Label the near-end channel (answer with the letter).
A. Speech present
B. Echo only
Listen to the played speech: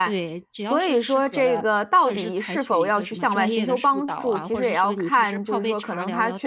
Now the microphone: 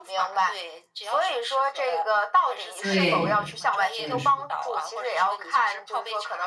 A